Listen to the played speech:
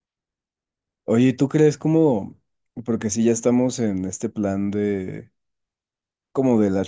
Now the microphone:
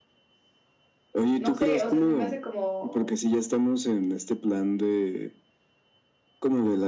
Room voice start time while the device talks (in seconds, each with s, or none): 1.4 s